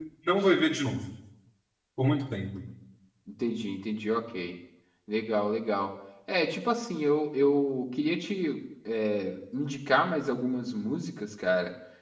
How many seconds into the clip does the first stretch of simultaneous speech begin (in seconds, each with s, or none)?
none